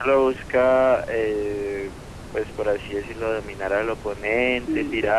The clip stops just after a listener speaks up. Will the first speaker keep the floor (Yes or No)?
Yes